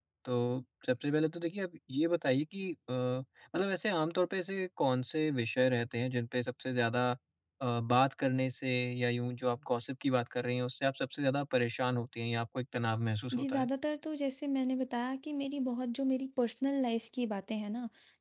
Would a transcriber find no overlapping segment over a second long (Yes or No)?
Yes